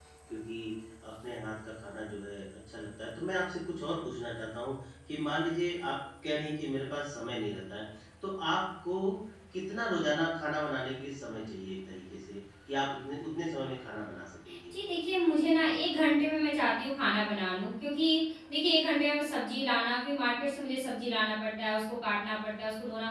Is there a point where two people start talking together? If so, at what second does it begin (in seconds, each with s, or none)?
none